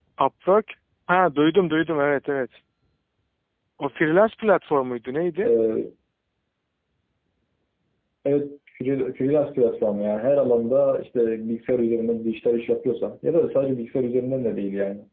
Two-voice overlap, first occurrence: none

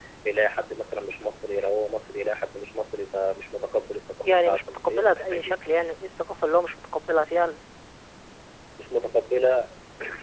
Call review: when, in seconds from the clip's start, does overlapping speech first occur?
4.2 s

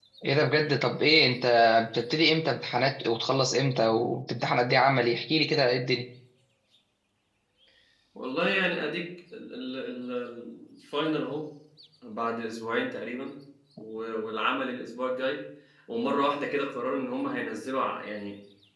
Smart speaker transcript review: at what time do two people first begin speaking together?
none

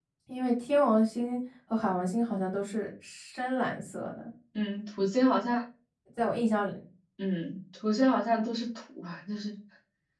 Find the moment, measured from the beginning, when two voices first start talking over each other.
none

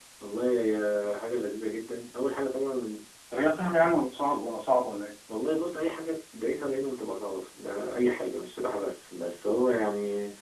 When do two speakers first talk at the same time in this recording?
none

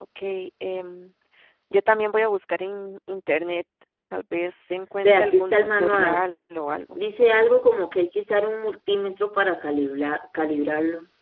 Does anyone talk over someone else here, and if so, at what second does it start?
5.0 s

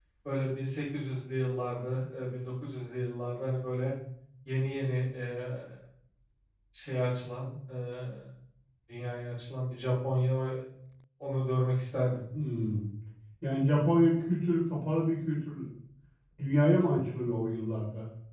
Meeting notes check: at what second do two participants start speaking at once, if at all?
none

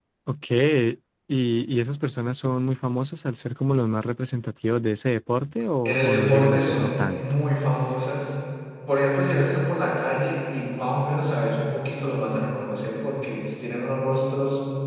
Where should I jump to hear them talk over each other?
5.8 s

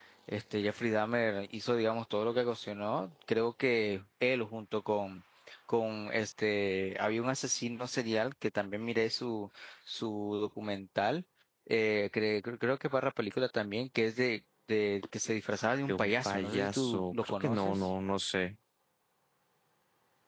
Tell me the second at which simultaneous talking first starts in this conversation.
15.9 s

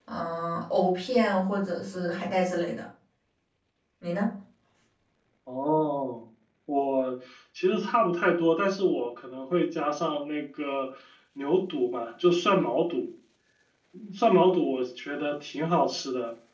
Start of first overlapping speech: none

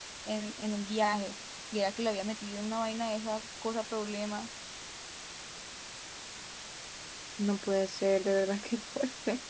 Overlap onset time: none

